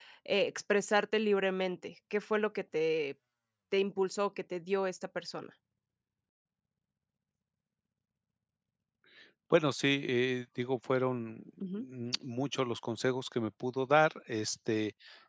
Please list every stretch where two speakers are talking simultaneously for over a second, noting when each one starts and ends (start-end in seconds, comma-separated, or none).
none